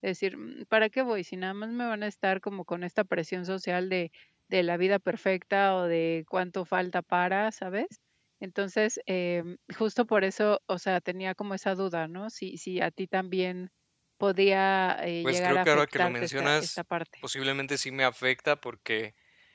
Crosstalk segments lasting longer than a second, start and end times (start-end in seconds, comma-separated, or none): 15.2-16.7